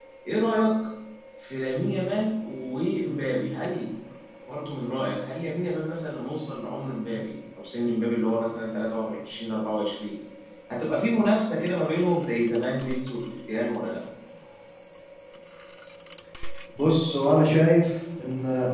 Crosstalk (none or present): none